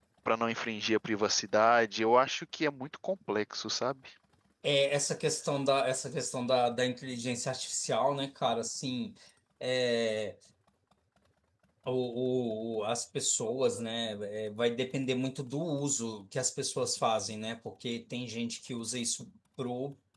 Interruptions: none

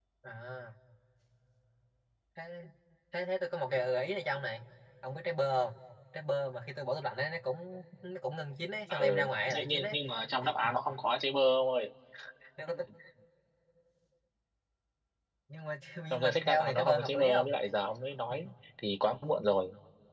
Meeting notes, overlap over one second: present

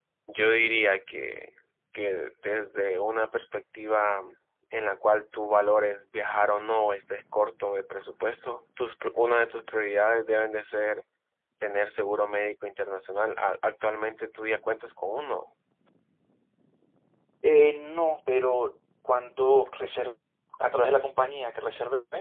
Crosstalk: none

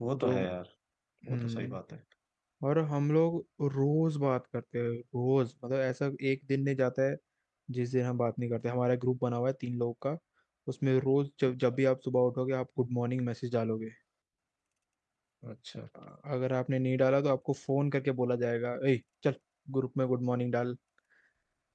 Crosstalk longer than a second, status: none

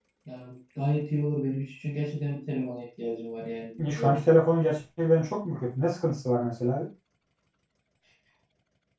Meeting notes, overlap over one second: none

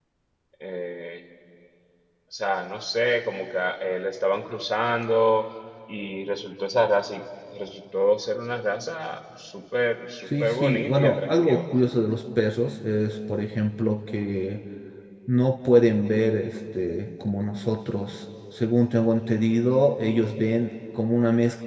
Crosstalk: present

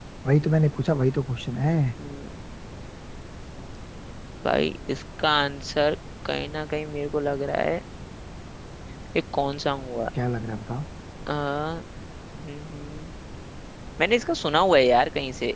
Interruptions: none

